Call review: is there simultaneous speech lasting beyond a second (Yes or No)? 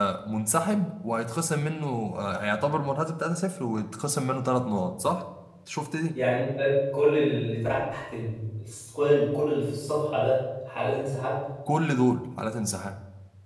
No